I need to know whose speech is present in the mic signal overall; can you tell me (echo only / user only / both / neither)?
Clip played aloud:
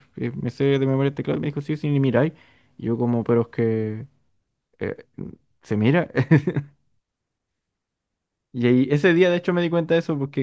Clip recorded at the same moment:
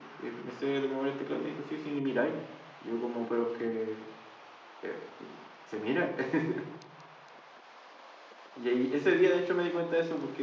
echo only